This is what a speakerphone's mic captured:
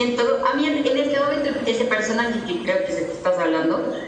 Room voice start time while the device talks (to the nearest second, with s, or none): none